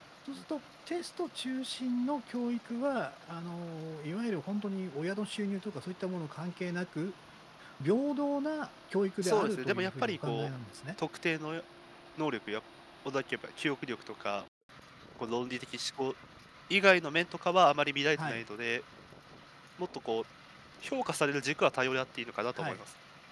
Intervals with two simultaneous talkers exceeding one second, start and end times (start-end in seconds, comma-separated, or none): 9.2-10.5